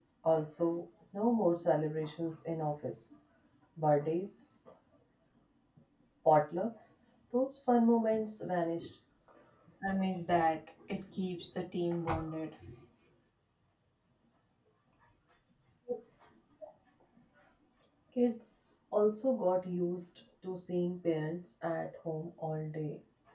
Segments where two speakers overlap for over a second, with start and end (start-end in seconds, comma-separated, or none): none